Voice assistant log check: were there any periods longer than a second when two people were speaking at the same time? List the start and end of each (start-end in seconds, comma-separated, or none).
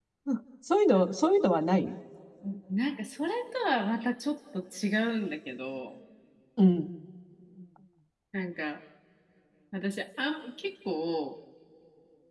none